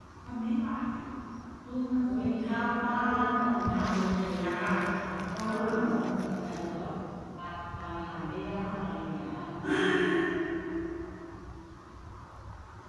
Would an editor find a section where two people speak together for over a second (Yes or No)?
Yes